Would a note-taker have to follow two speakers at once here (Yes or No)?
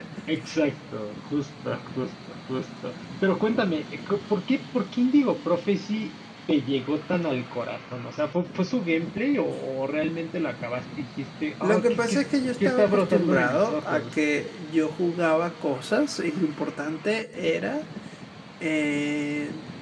Yes